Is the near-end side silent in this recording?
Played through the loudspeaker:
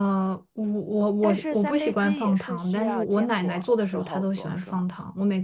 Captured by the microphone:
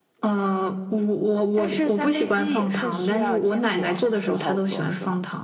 Yes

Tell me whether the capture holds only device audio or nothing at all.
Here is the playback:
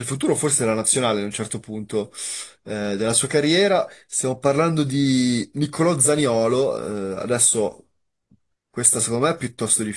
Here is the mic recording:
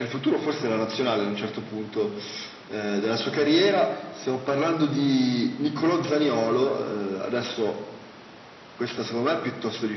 Yes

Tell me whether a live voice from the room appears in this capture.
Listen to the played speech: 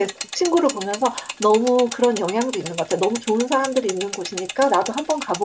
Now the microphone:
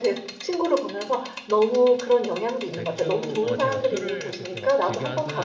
Yes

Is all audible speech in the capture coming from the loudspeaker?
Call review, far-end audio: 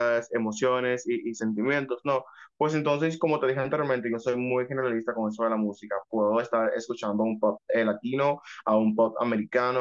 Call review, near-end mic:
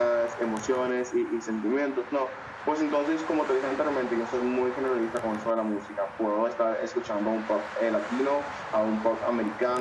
Yes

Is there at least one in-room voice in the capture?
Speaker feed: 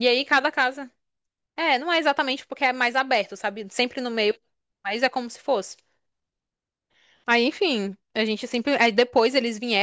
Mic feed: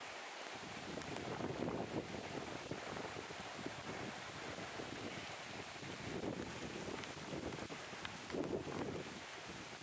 No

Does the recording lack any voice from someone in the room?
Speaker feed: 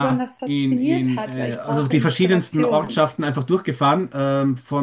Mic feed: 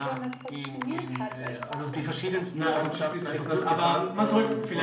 No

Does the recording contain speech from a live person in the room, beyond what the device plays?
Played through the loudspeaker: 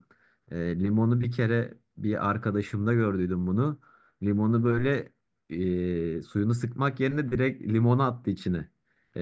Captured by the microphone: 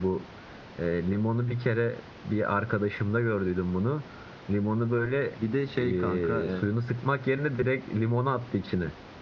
Yes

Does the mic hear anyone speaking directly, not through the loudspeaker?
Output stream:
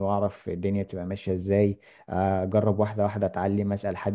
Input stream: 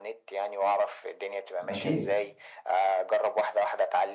Yes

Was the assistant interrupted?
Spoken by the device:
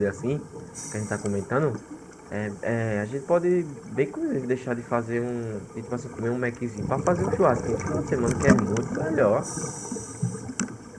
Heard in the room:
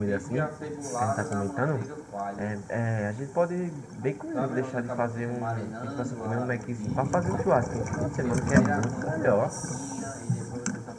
Yes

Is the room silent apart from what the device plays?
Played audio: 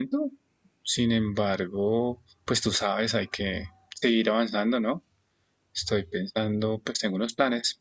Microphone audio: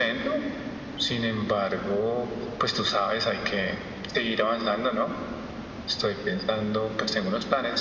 Yes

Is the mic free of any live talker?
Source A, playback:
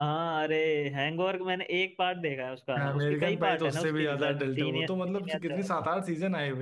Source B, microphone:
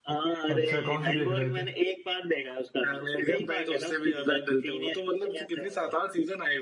No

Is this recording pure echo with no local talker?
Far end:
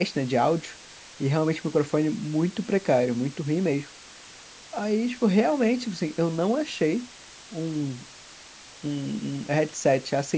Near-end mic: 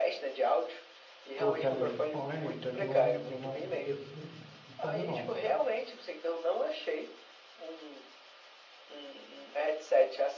No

